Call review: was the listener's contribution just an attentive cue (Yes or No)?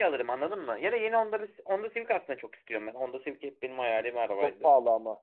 No